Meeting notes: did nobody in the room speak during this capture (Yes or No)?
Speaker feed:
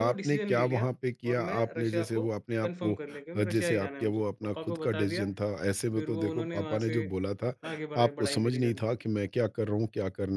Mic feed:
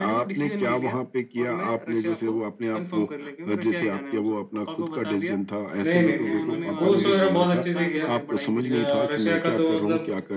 No